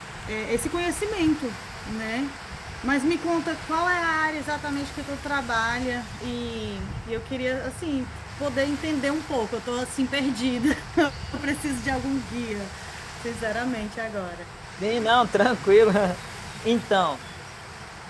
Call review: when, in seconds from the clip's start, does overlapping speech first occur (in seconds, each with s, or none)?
none